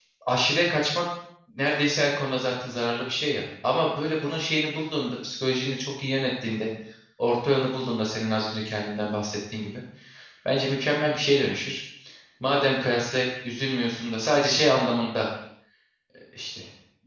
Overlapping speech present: No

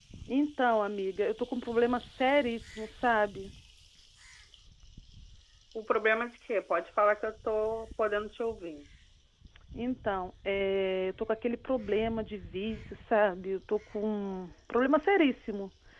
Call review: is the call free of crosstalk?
Yes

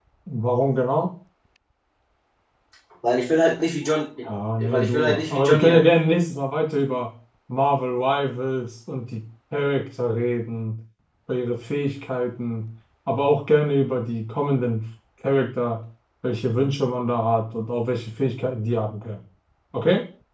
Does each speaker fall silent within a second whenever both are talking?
No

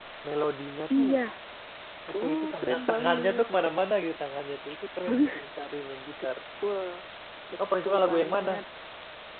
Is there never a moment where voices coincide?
No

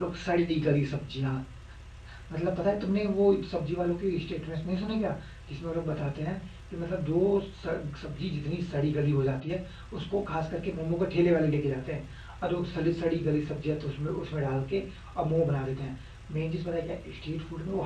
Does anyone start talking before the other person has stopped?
No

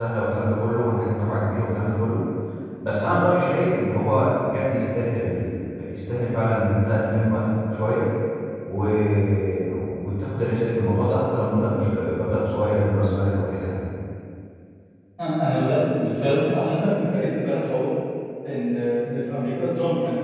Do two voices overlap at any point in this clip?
No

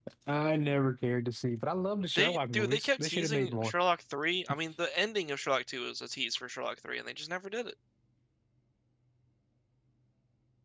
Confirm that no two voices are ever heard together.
No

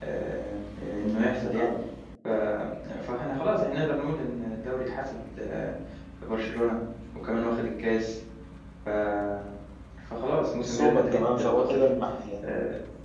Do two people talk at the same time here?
Yes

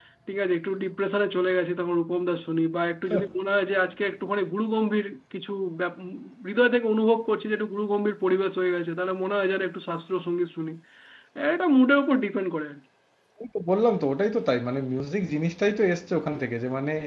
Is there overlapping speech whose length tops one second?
No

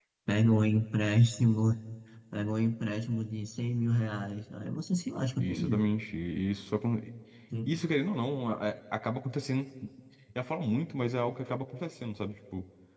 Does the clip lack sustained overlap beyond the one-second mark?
Yes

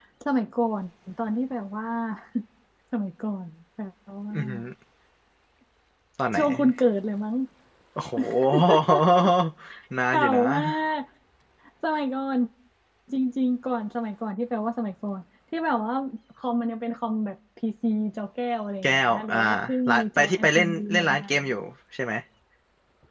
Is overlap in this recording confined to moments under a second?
No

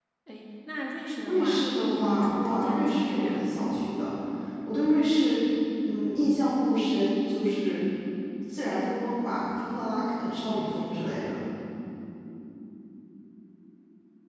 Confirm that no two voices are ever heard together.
No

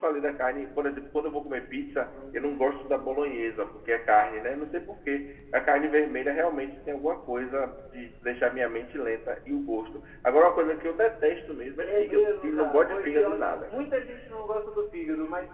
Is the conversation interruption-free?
No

